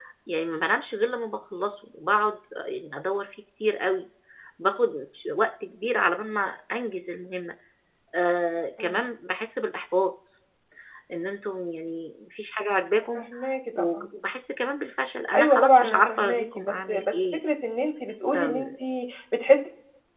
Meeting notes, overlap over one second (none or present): present